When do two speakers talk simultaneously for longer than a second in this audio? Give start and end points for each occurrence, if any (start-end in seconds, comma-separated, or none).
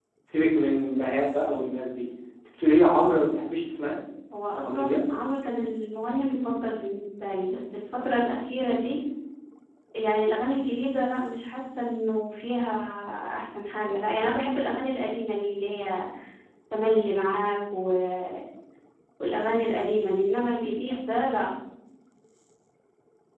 none